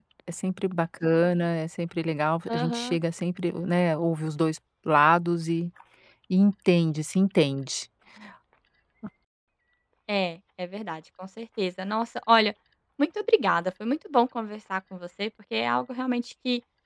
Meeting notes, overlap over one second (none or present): none